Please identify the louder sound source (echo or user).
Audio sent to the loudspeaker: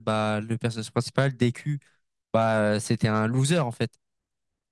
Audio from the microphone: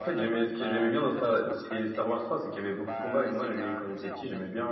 user